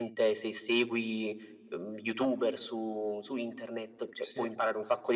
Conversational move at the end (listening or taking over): listening